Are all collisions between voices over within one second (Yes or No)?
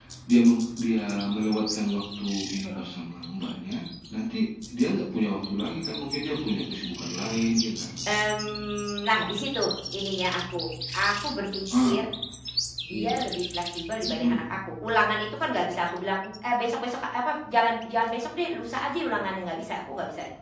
Yes